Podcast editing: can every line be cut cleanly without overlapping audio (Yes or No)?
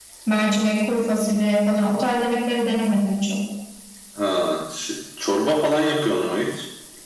Yes